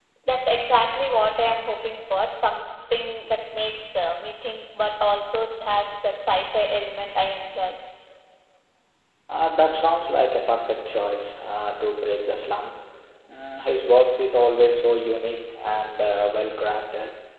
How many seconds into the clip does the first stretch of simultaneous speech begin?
none

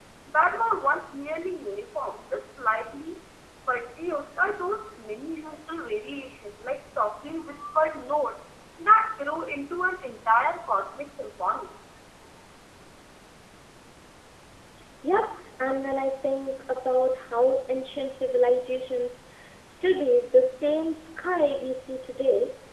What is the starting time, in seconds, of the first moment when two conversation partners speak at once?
none

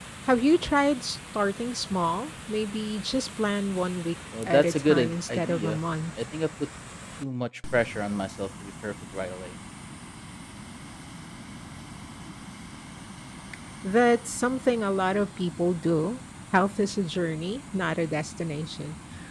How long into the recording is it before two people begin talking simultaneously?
4.3 s

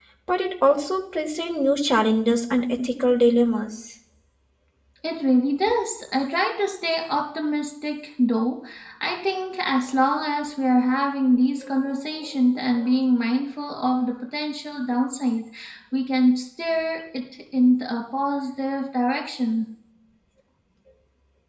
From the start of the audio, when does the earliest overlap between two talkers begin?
none

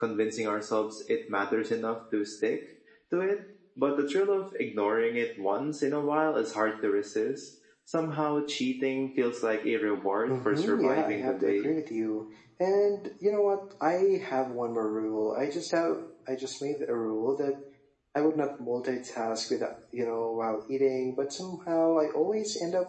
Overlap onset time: 10.3 s

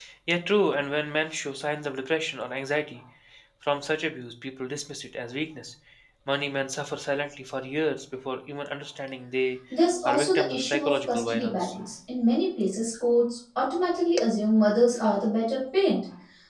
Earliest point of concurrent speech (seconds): 10.0 s

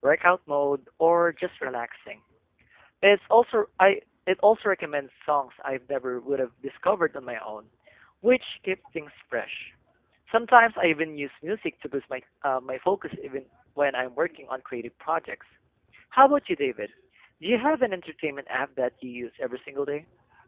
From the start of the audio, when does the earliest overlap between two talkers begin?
none

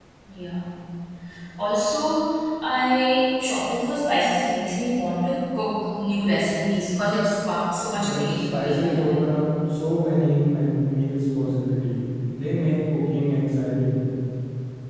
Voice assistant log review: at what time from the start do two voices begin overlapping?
8.0 s

